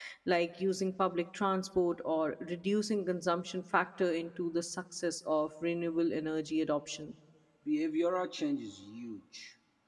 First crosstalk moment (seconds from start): none

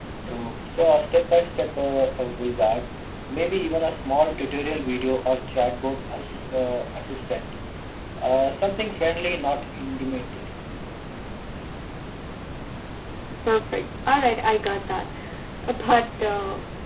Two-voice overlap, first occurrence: none

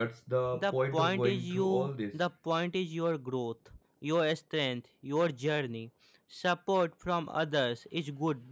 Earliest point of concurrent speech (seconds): 0.5 s

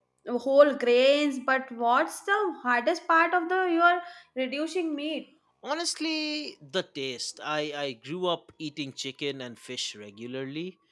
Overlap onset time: none

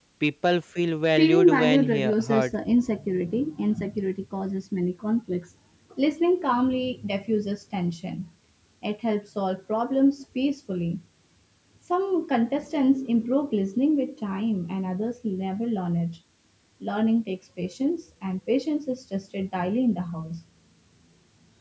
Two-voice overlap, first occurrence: 1.2 s

